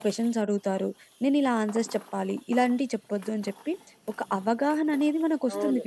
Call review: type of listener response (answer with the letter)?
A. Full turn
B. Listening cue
A